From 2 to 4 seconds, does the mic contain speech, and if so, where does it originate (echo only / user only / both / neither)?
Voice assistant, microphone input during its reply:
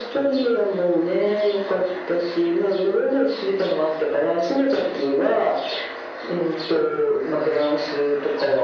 echo only